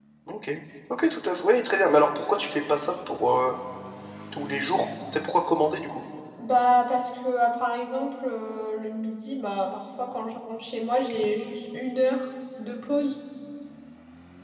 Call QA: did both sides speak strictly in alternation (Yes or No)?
Yes